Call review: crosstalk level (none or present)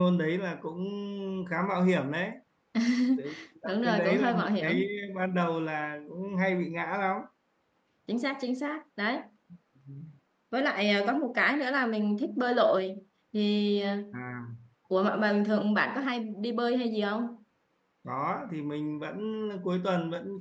present